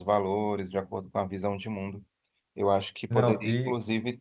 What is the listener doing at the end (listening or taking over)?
listening